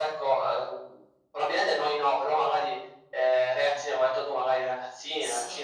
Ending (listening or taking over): listening